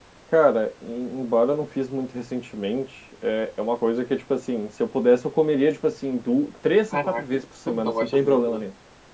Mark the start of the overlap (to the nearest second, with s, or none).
7 s